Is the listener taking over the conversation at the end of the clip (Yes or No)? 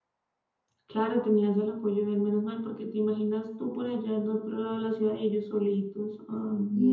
Yes